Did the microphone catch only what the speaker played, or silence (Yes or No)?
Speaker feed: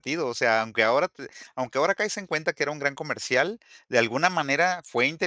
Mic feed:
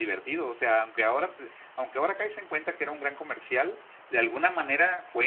Yes